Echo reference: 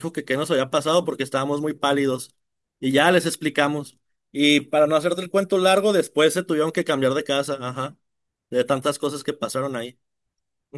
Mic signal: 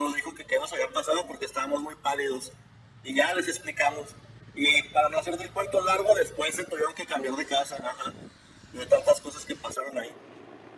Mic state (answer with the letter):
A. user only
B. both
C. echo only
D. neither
C